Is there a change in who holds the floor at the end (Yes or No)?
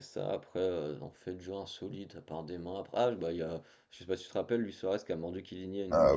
Yes